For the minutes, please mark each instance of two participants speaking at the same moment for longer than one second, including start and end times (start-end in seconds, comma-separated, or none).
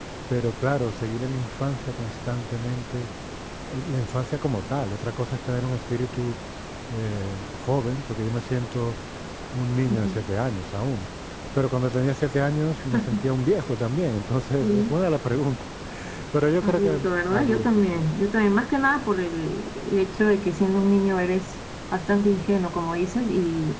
16.6-18.1